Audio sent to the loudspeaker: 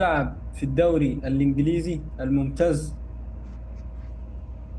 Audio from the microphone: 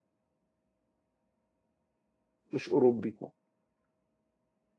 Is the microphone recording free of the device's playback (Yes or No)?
Yes